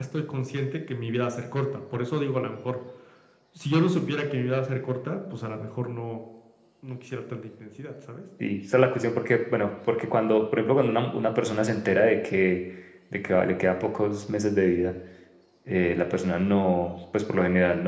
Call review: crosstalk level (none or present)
none